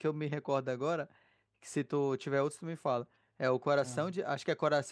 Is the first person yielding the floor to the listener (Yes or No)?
No